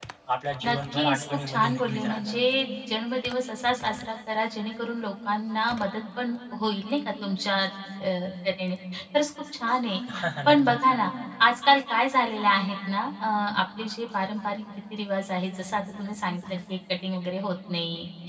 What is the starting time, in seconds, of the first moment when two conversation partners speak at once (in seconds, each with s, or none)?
0.6 s